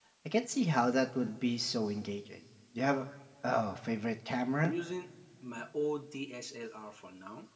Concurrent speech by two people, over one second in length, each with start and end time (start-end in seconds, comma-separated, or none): none